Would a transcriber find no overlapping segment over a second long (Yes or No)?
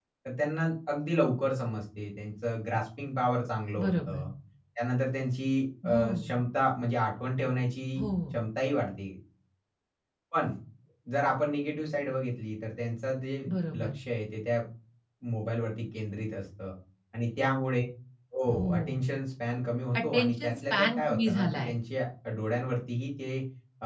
No